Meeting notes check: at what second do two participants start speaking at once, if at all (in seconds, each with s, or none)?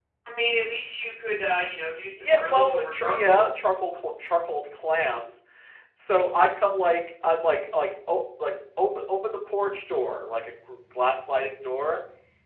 2.2 s